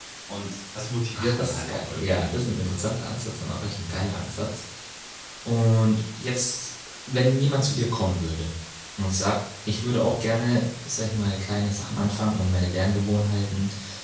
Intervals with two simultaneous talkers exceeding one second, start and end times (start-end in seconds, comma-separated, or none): 1.1-2.5